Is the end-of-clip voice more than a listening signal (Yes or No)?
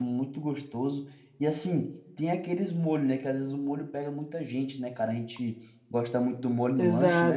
Yes